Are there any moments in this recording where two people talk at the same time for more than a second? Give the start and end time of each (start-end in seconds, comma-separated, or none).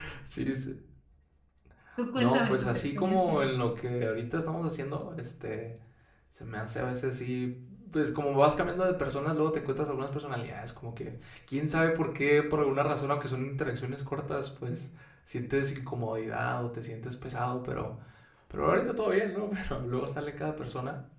2.2-3.4